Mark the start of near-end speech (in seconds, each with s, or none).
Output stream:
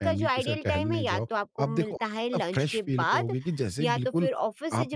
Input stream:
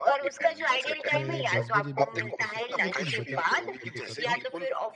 1.1 s